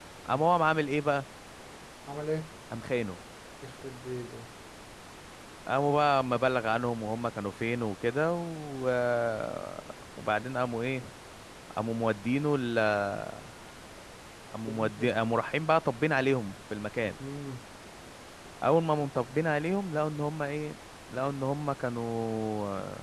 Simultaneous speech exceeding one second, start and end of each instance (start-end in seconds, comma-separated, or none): none